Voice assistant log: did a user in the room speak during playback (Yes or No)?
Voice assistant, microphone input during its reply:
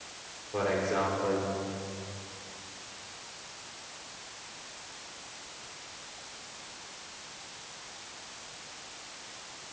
Yes